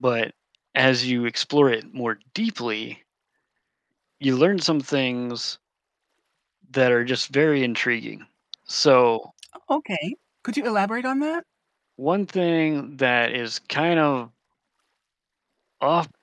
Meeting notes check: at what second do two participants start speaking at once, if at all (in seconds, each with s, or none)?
none